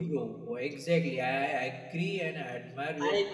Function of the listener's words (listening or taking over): taking over